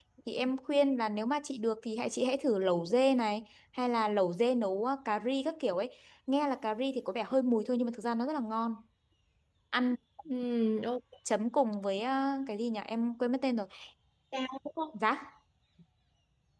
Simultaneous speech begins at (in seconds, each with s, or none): none